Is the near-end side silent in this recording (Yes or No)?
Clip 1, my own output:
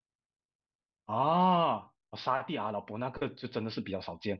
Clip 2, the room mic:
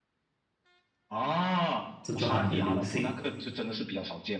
No